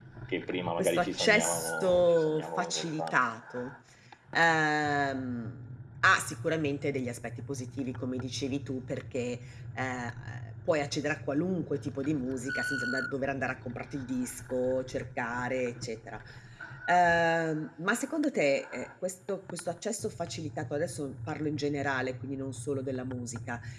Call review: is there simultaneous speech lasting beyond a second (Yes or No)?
Yes